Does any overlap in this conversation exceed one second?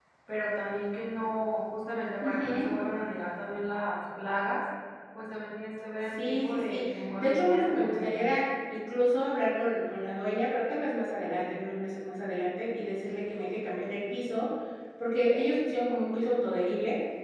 Yes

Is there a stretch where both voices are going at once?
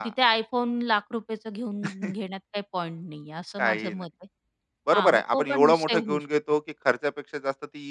Yes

